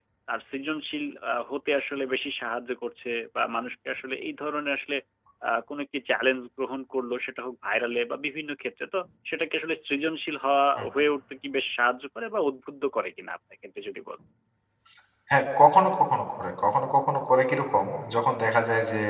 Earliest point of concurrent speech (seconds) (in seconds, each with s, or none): none